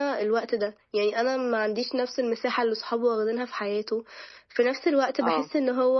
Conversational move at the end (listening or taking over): listening